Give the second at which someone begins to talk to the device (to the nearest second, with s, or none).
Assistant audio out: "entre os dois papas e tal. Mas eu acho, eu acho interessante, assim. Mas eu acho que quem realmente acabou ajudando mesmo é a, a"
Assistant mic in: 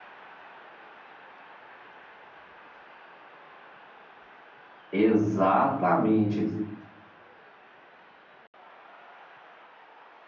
5 s